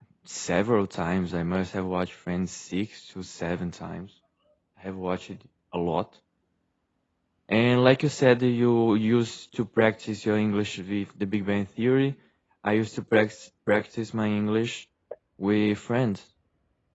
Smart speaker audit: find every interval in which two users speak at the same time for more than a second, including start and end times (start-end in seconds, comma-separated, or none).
none